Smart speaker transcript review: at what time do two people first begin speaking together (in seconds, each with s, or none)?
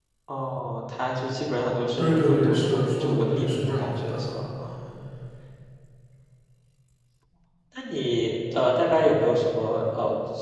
2.0 s